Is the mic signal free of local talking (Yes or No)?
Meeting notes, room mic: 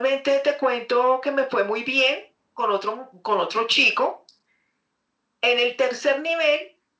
Yes